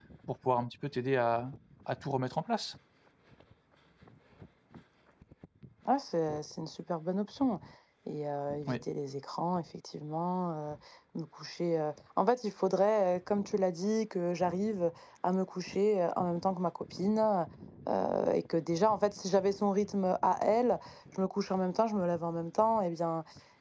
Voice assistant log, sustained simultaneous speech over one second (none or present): none